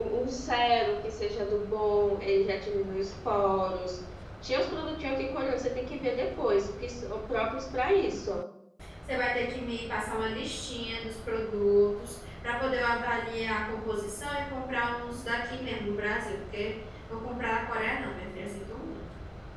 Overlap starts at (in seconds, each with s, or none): none